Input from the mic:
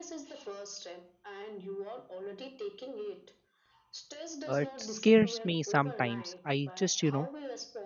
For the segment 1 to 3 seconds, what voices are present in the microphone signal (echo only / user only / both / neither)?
echo only